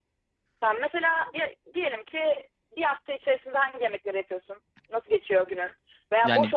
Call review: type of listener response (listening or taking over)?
listening